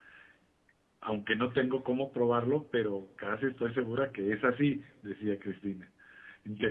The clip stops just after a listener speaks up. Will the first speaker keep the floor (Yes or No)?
No